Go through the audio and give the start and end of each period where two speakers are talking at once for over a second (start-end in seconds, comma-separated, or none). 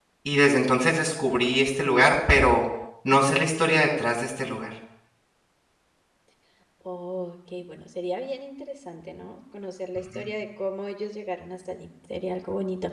none